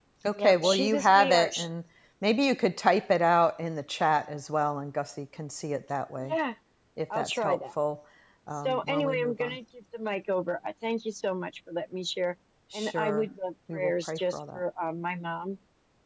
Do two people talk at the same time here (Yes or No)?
Yes